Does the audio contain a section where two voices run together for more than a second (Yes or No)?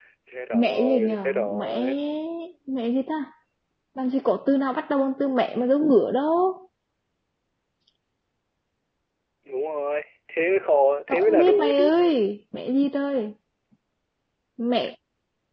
Yes